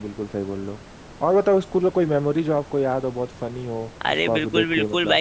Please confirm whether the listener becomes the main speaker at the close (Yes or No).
Yes